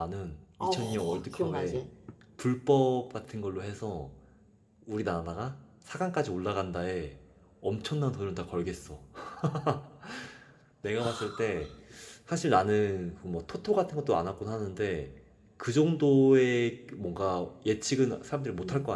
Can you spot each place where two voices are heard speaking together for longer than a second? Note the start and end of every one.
0.6-1.9

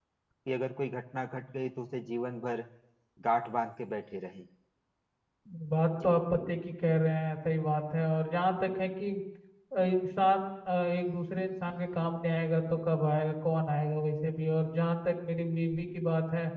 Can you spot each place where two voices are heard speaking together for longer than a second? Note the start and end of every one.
none

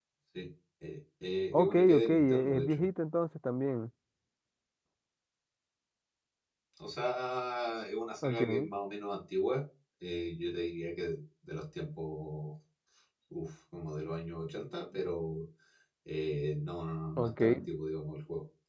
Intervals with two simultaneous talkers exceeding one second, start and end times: 1.5-2.9

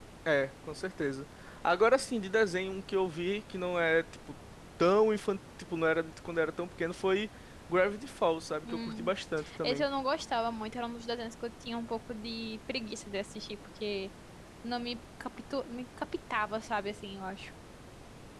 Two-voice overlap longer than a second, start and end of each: none

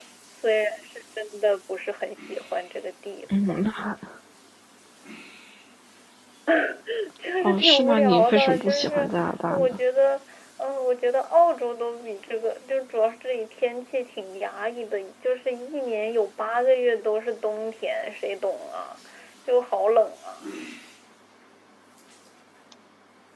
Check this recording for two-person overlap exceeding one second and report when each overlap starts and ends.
7.4-9.1

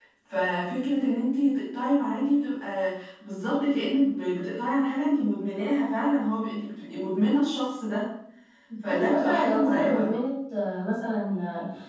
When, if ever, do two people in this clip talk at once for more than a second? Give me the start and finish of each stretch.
8.8-10.1

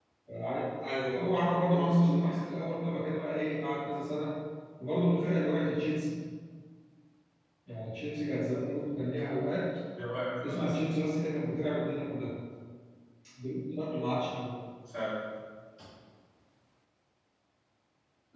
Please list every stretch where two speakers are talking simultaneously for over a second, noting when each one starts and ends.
1.2-2.4

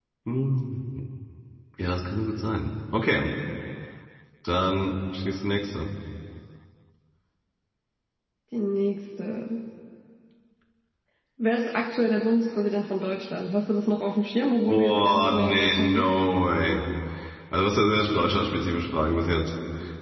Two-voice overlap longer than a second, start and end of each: 14.7-16.1

